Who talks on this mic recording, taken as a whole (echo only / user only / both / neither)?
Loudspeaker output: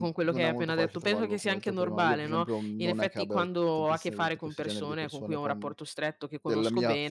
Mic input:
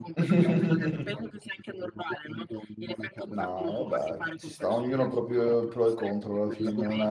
both